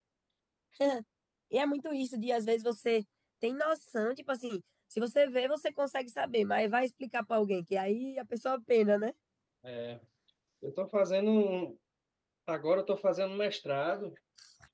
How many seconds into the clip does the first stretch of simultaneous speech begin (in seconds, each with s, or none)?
none